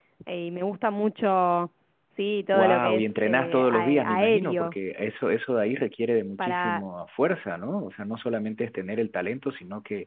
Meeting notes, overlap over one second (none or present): present